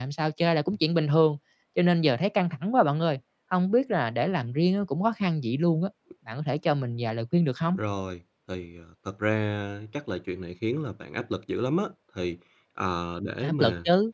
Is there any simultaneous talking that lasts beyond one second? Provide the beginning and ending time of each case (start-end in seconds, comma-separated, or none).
none